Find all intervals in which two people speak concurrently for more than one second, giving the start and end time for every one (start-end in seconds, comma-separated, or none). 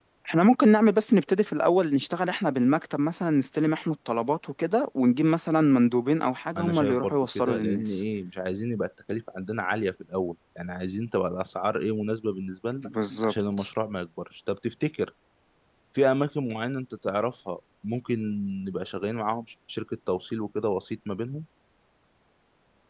6.6-8.0